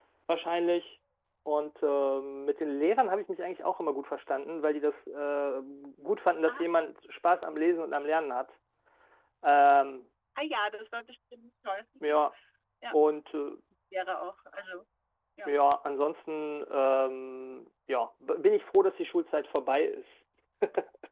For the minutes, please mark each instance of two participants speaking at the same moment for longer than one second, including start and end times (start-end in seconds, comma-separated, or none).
none